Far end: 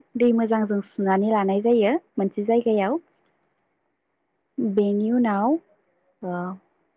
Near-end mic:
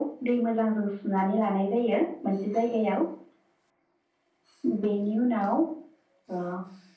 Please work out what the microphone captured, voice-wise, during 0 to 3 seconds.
echo only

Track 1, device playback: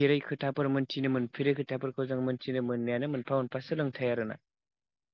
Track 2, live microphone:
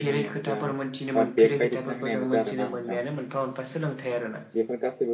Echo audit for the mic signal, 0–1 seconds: both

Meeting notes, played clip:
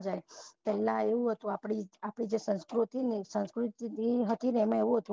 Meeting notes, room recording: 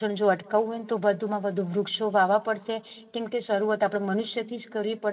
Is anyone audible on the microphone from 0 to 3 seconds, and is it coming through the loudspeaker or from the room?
user only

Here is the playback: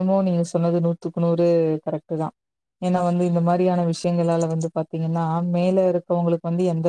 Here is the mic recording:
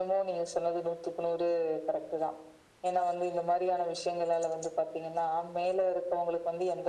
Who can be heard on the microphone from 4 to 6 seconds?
echo only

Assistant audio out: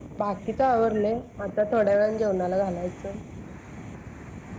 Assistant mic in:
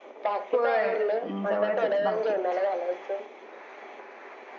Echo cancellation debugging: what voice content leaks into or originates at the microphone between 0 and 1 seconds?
both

